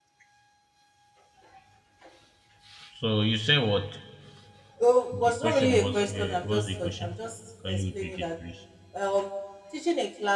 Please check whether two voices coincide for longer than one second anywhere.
Yes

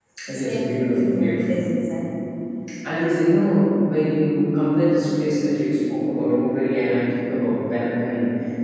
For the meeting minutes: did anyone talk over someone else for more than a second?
Yes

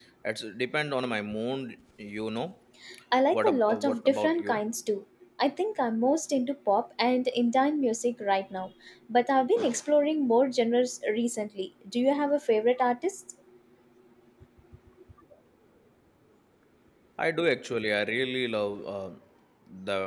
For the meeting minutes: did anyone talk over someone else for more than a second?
Yes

